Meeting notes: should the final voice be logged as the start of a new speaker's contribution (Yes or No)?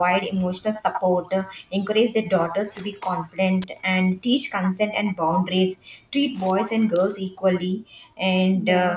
No